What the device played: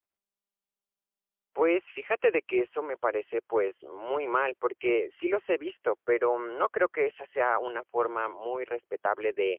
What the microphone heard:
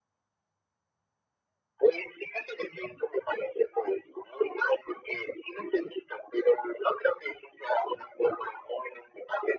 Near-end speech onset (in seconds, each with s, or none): none